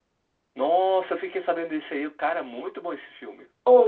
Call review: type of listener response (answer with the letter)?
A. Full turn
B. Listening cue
A